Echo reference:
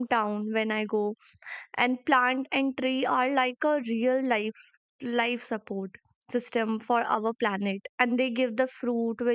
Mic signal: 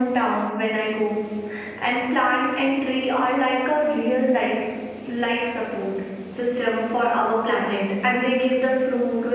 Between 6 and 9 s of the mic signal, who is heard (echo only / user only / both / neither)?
echo only